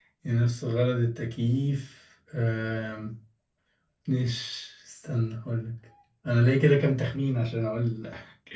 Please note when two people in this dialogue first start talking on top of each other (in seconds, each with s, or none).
none